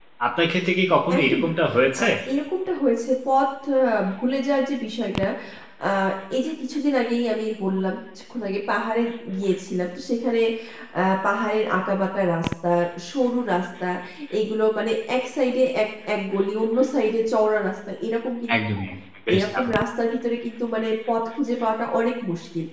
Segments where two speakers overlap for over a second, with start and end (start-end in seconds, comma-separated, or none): none